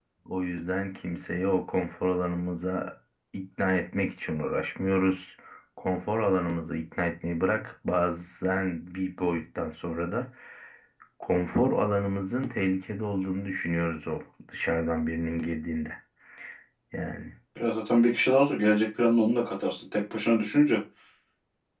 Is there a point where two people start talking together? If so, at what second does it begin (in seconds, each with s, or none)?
none